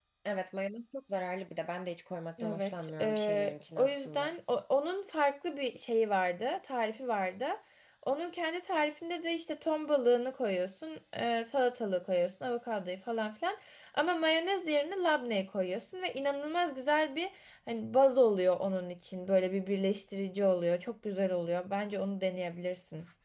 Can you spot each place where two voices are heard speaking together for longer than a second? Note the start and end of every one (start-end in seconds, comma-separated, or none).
2.4-4.3